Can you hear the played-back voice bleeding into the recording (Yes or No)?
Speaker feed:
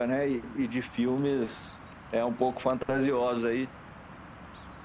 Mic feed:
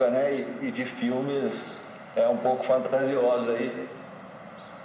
Yes